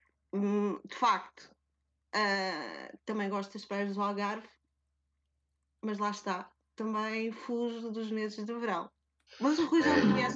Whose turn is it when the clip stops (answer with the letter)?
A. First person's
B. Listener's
B